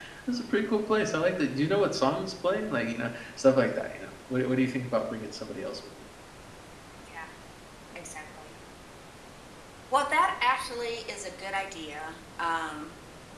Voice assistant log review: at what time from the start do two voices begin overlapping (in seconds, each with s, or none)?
none